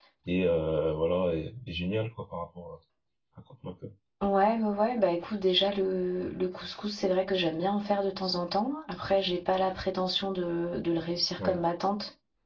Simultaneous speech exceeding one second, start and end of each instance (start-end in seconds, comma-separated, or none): none